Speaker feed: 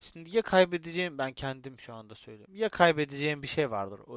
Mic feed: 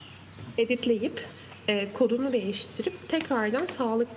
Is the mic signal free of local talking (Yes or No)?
No